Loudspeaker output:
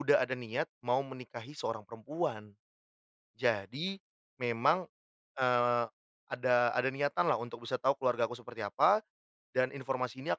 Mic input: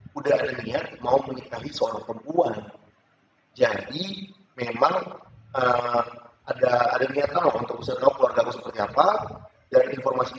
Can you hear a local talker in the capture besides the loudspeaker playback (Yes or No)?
No